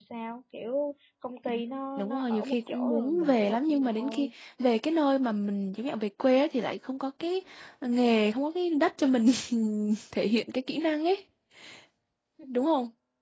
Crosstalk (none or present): present